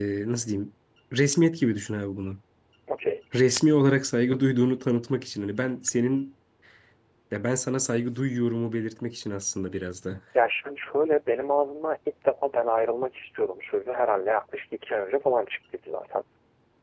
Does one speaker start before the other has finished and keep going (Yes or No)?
No